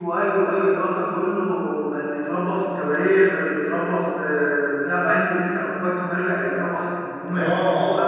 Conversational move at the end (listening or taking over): taking over